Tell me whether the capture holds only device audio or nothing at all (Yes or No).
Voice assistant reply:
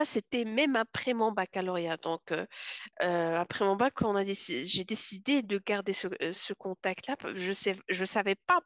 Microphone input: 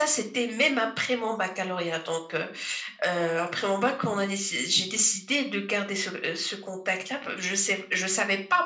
Yes